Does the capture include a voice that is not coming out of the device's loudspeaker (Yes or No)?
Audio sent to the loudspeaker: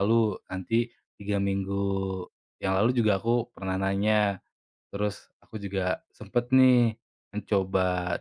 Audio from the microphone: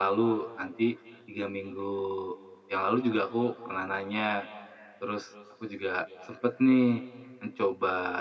No